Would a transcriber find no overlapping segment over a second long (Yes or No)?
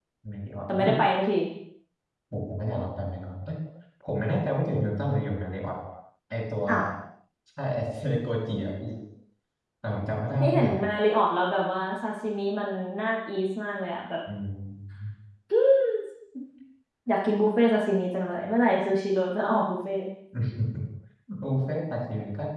Yes